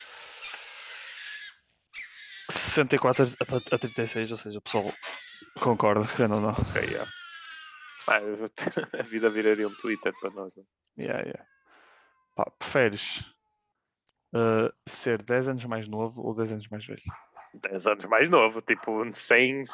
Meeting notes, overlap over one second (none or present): none